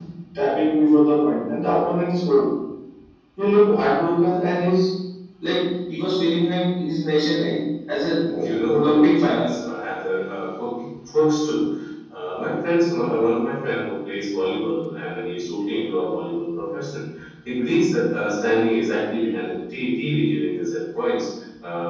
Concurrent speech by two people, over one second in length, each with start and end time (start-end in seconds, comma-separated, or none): 8.3-9.6